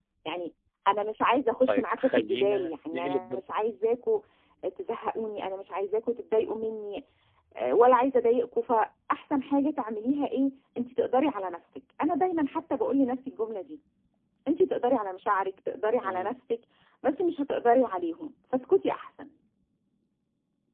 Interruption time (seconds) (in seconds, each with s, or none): 1.7 s